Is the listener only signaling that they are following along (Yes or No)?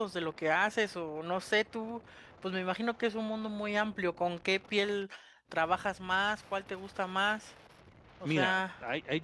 No